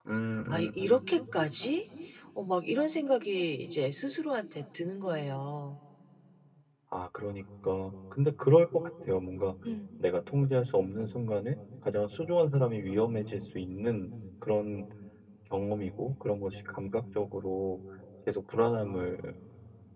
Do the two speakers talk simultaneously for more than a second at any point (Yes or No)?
No